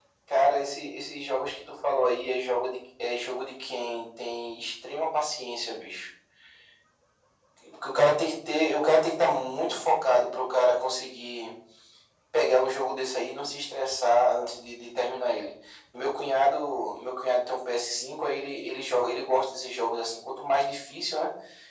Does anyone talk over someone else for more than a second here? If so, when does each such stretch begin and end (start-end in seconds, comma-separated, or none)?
none